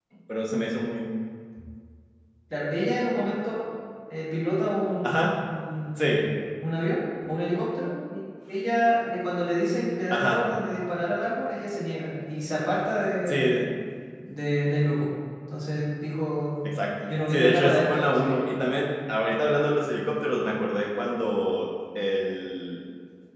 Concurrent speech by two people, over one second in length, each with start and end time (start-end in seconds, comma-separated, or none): 17.1-18.4